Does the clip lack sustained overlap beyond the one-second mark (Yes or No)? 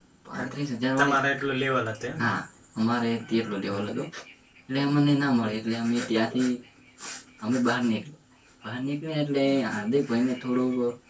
Yes